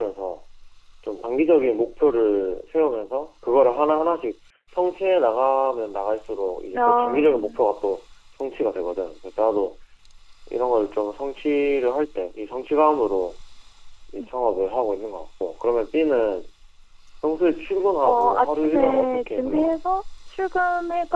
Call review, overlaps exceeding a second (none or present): present